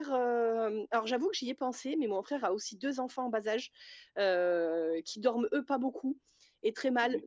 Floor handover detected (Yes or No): No